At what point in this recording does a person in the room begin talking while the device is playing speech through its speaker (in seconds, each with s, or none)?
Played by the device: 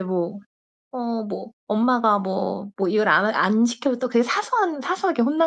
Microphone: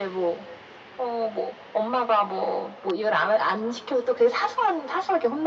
none